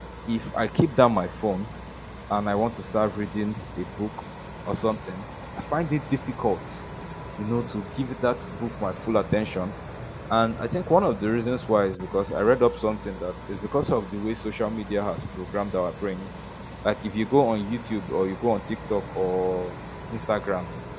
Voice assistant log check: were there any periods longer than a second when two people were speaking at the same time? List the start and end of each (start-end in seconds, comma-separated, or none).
none